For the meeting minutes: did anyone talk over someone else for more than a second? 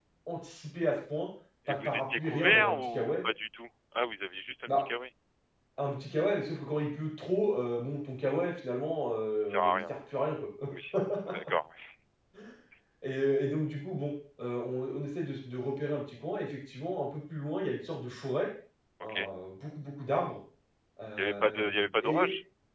Yes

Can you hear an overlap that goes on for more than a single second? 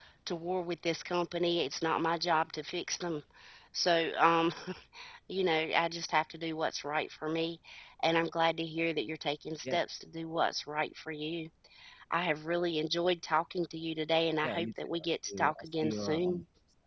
Yes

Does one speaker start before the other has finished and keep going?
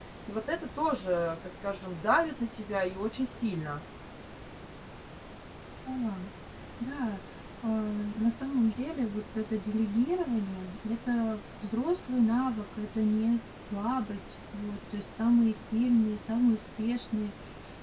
No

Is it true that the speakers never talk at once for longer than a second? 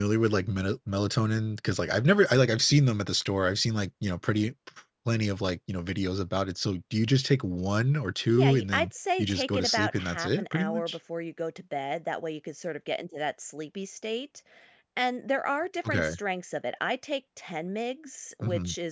No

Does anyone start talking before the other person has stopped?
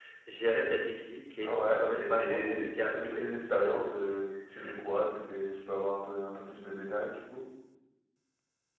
Yes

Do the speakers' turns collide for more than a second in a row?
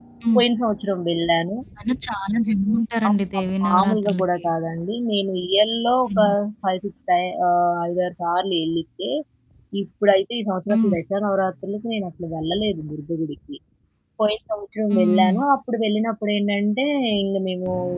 Yes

